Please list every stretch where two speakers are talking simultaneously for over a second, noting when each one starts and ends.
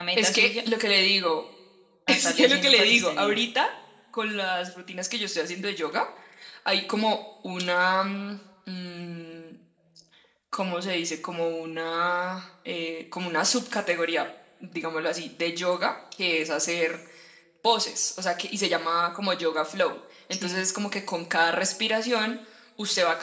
2.1-3.4

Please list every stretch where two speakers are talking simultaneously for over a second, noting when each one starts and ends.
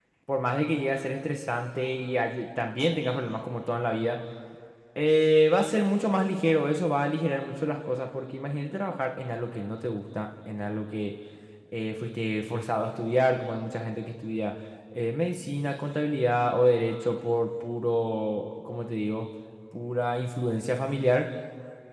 none

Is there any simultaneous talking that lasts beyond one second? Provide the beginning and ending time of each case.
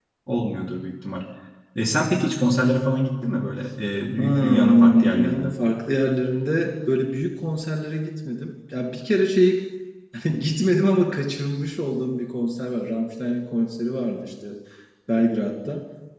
4.2-5.5

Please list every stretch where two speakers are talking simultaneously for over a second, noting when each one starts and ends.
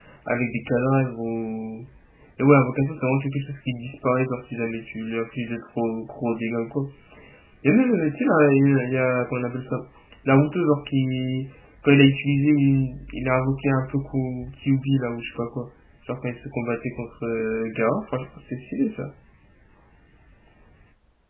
none

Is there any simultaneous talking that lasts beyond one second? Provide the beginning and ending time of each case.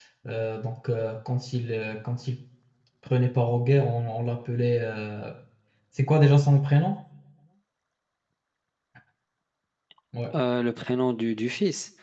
none

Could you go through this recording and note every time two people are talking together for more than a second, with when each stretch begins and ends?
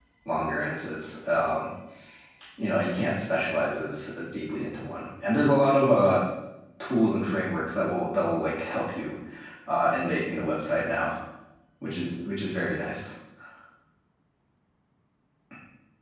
none

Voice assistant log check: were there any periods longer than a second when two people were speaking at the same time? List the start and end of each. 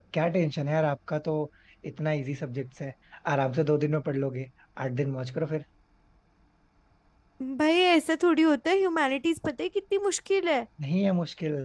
none

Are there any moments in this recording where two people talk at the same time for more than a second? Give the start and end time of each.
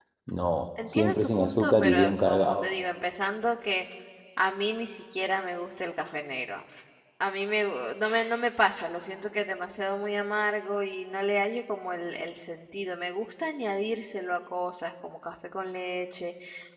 0.9-2.7

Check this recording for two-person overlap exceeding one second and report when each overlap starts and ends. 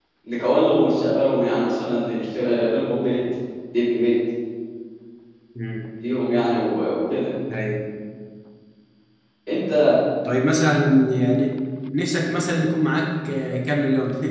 none

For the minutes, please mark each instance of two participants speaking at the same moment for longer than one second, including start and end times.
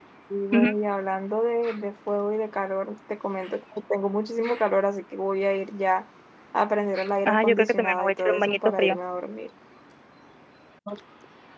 7.2-9.0

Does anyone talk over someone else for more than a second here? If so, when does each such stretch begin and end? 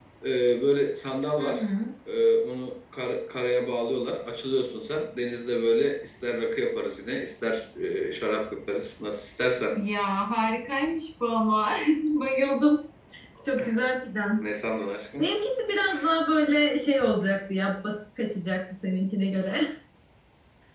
none

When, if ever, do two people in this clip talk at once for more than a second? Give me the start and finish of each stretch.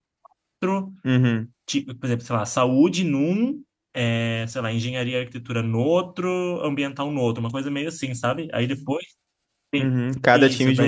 none

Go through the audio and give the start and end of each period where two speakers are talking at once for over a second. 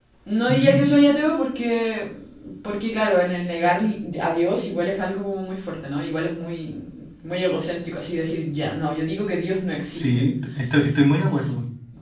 none

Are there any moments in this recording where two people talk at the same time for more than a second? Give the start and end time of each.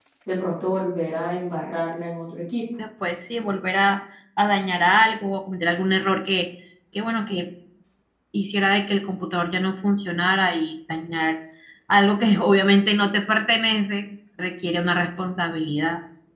none

